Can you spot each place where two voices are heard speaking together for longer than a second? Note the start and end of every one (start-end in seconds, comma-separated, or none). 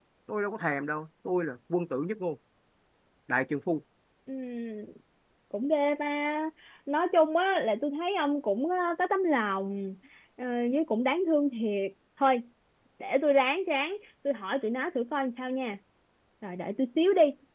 none